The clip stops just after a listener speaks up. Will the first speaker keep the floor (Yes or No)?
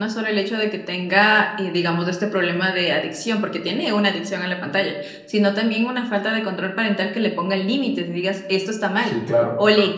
Yes